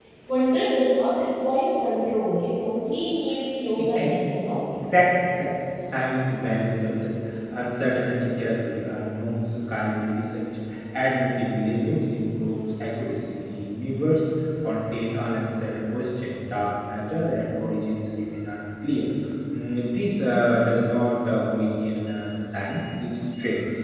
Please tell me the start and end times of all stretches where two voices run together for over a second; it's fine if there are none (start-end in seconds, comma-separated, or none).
none